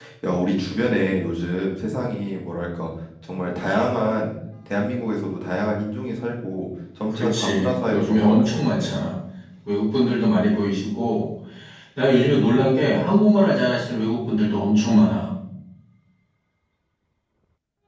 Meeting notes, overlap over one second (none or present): present